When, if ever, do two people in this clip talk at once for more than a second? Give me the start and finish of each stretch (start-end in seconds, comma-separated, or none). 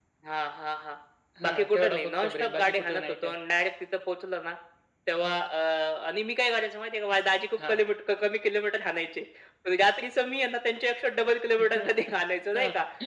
1.4-3.3